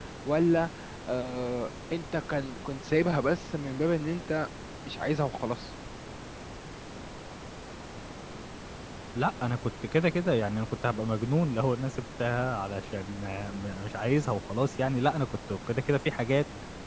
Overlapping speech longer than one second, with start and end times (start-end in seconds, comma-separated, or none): none